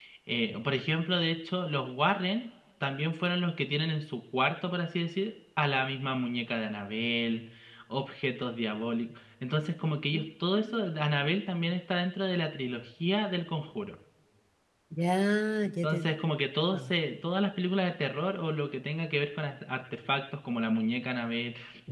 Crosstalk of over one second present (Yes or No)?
No